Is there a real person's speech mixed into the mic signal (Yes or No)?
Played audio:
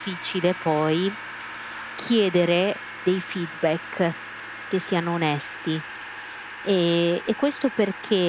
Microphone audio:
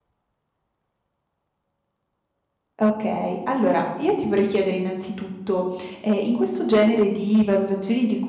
Yes